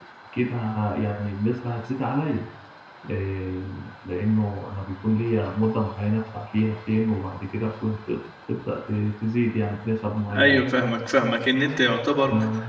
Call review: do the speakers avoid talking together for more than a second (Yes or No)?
Yes